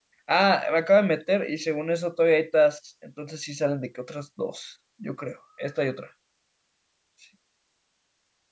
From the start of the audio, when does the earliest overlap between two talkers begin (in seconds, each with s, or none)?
none